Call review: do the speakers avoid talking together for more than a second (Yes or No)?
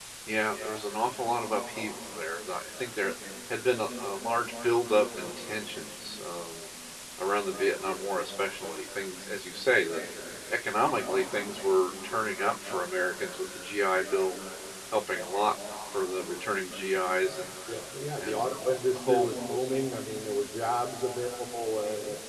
Yes